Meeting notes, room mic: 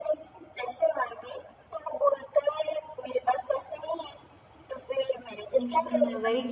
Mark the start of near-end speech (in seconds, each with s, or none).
5.6 s